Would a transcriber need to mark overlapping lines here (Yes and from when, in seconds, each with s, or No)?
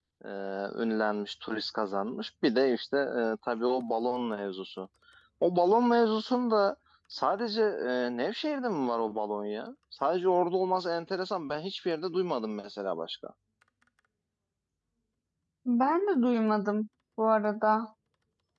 No